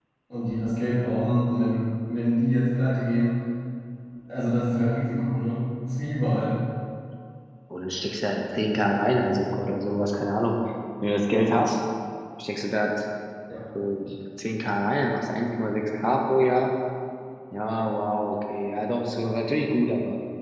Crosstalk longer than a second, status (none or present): none